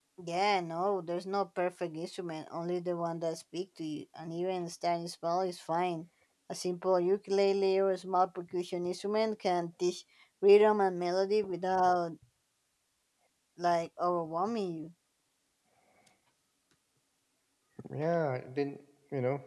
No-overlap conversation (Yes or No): Yes